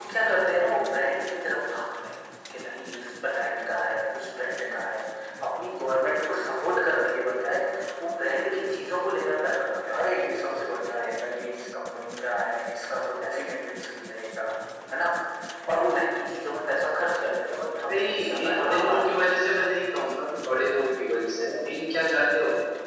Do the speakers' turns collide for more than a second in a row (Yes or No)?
Yes